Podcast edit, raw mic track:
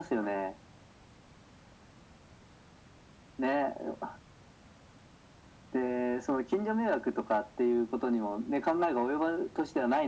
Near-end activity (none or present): none